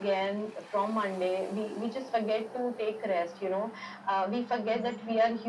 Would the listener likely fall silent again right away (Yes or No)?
Yes